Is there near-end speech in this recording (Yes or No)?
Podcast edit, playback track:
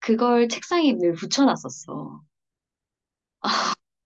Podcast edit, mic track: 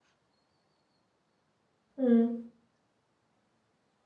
Yes